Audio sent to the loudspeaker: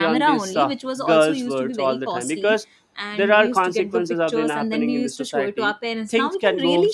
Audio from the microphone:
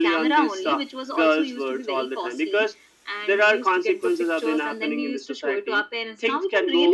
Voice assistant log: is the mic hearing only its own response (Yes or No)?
Yes